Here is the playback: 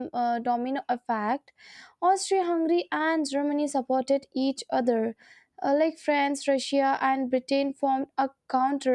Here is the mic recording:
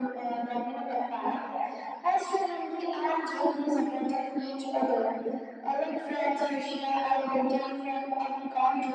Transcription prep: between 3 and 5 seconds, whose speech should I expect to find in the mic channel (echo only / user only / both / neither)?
echo only